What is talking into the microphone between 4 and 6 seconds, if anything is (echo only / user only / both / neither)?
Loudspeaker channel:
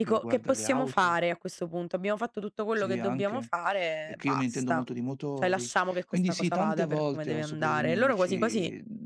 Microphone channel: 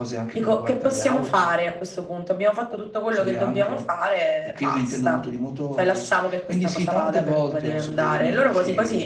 echo only